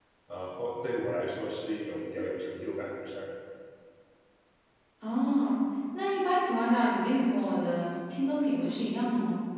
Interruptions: none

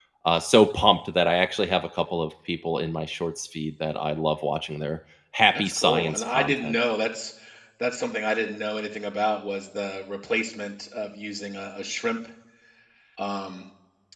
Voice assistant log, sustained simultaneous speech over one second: present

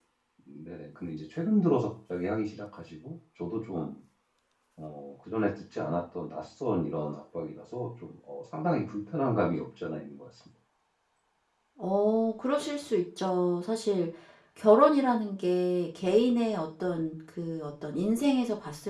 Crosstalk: none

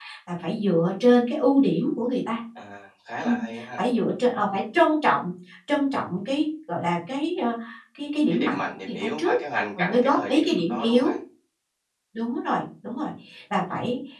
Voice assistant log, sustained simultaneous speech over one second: present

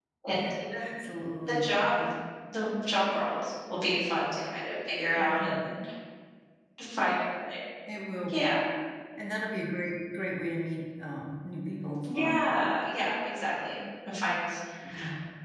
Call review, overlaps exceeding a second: none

